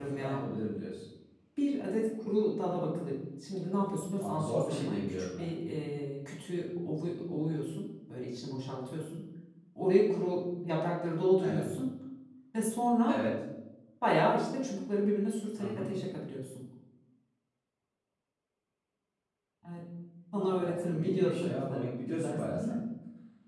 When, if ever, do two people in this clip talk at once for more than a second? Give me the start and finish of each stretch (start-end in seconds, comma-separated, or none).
4.2-5.5, 20.3-22.8